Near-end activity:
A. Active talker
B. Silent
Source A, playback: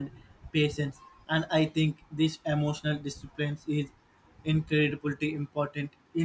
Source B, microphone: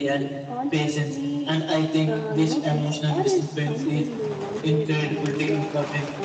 A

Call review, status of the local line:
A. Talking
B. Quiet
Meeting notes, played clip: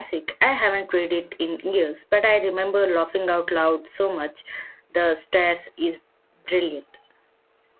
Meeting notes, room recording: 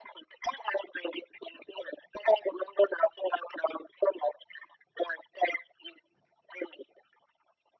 B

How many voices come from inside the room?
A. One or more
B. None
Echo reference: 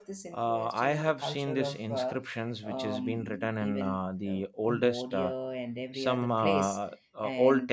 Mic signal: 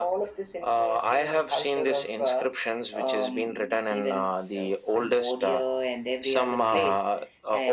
B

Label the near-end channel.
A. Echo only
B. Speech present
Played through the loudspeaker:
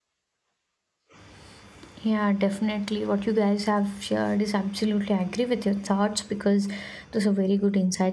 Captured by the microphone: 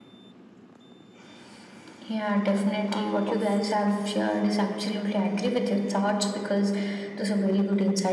B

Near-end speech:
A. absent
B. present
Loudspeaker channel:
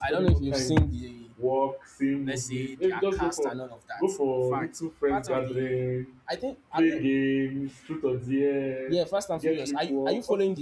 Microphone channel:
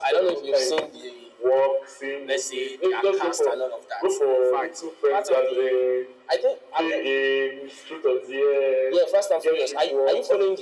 A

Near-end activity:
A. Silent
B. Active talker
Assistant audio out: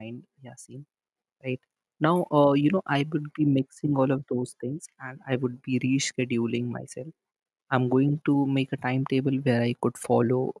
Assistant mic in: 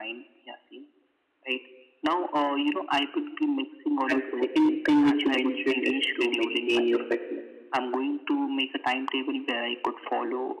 B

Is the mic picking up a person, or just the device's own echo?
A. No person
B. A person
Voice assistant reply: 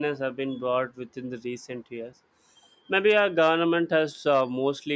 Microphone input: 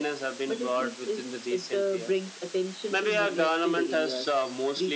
B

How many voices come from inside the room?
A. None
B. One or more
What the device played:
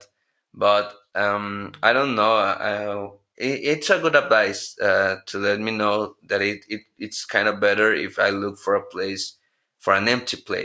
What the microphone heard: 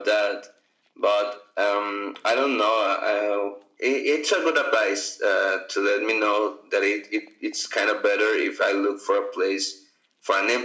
A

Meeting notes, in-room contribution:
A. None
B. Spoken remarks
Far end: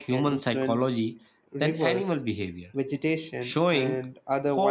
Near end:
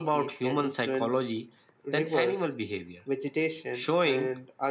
A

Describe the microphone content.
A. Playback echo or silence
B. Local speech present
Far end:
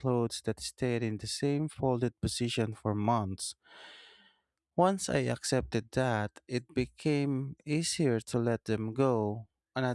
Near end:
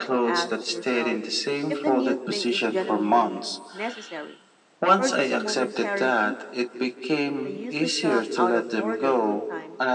B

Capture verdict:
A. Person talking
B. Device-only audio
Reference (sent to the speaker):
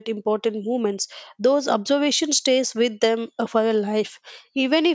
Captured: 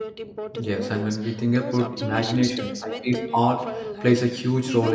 A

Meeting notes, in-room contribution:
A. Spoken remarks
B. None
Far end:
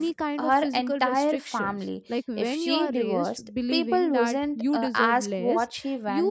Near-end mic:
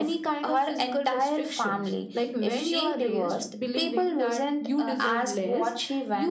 B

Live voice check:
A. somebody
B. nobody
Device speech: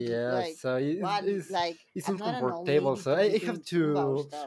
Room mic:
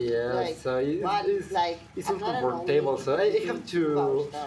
B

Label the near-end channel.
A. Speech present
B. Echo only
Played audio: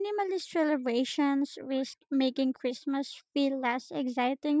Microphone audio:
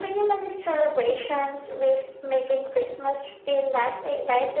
B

